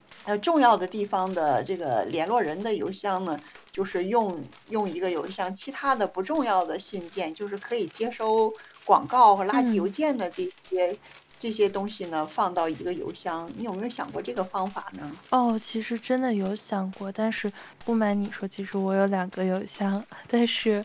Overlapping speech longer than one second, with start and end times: none

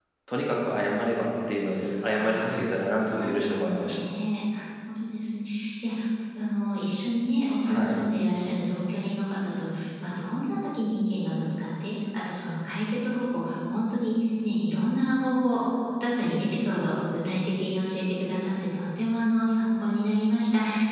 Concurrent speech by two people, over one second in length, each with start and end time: 2.1-4.0

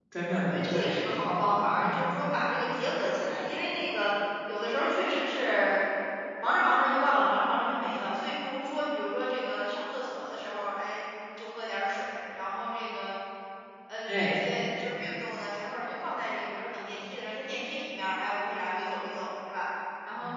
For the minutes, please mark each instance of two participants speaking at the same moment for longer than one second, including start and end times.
none

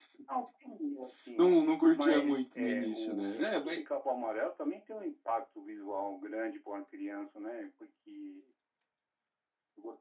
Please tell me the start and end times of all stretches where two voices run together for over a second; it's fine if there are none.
1.9-3.8

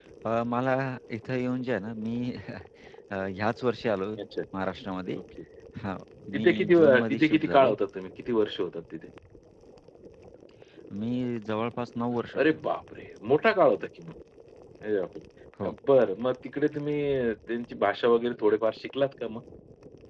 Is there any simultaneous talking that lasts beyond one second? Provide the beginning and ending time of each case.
6.3-7.8

